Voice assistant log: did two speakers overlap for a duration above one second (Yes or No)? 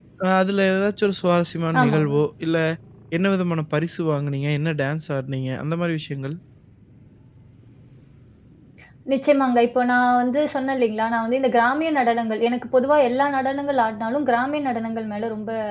No